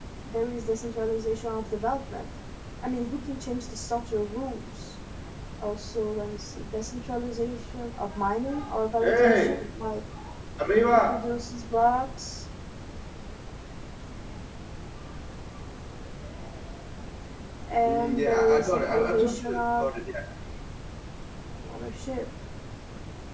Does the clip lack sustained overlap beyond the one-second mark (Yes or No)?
No